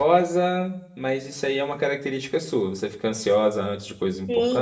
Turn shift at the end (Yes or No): Yes